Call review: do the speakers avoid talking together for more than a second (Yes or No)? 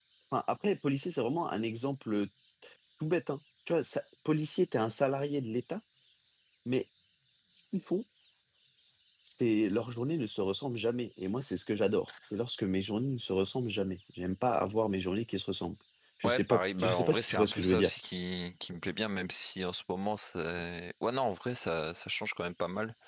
No